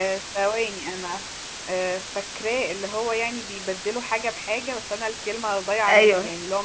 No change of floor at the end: No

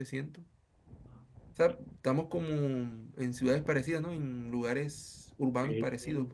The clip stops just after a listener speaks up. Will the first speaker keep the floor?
No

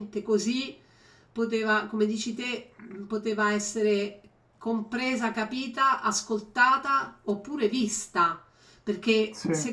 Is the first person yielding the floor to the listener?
No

